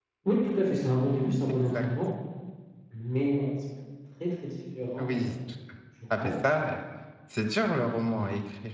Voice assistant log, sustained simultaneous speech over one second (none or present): none